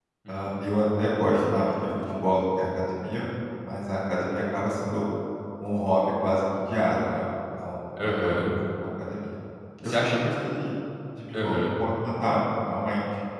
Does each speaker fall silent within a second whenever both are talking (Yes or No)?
No